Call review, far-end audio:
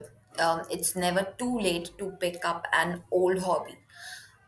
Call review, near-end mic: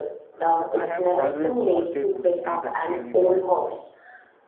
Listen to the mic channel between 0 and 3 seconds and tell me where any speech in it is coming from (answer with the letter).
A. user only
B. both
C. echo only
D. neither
B